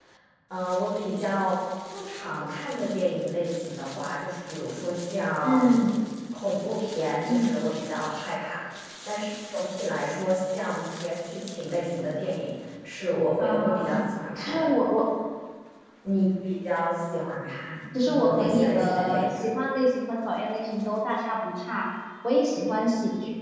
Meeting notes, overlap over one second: present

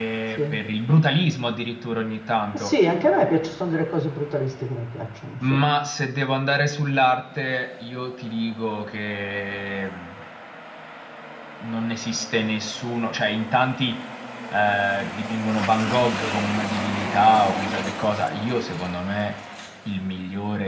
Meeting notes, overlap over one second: none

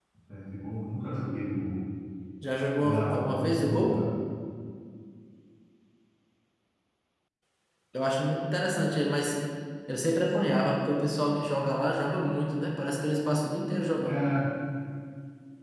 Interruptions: present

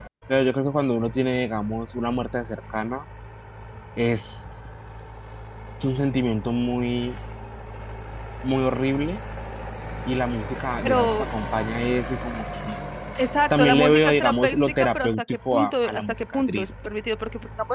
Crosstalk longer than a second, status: present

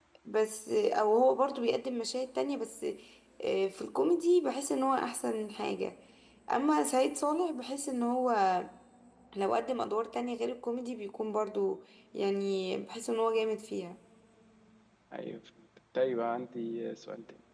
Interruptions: none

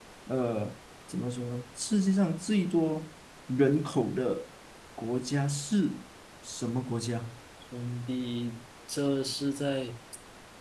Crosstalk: none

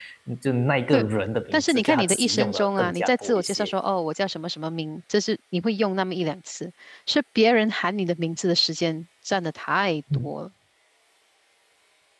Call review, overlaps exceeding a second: present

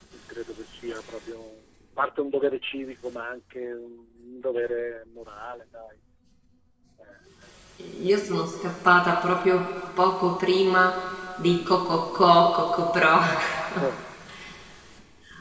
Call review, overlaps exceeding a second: none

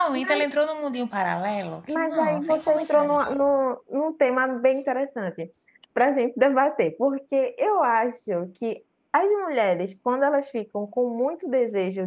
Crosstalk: present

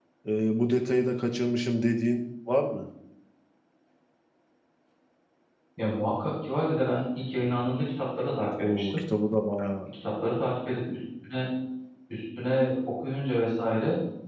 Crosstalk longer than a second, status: none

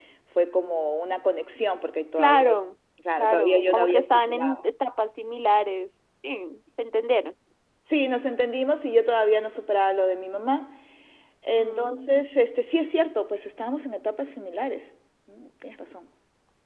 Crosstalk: present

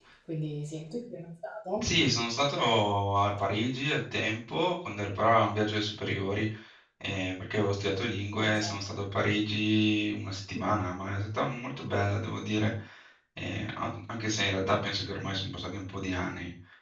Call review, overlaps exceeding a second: none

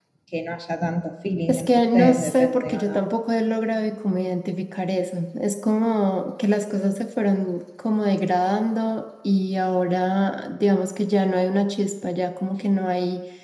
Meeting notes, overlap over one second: present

